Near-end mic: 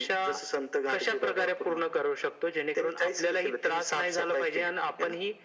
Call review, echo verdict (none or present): present